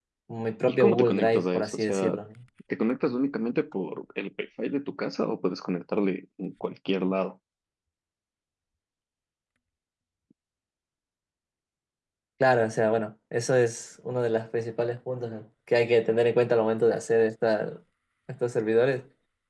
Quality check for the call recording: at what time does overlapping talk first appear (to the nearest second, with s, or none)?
1 s